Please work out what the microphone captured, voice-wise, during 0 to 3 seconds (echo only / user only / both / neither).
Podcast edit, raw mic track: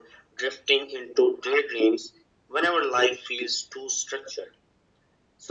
echo only